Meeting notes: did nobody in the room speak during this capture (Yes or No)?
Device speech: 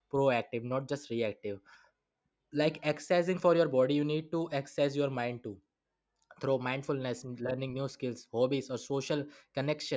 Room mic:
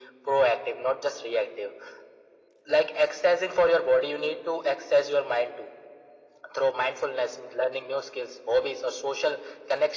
Yes